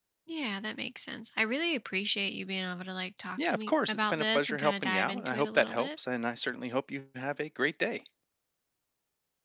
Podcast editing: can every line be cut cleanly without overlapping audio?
No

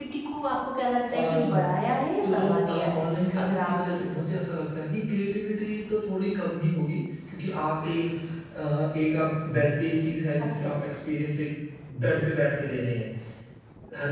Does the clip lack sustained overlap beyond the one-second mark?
No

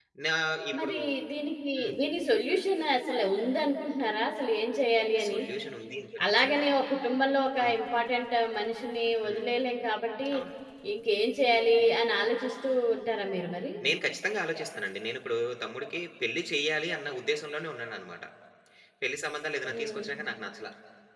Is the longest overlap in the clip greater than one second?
No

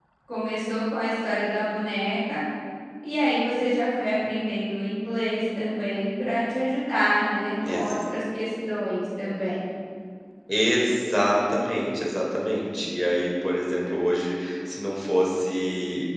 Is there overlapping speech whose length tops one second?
No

